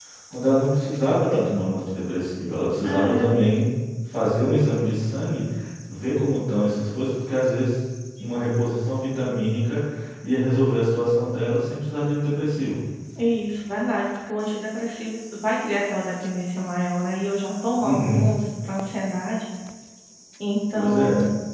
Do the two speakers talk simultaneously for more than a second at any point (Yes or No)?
No